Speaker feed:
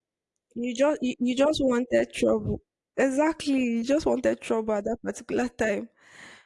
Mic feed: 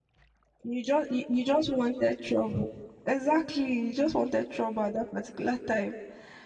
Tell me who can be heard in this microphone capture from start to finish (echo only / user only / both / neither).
echo only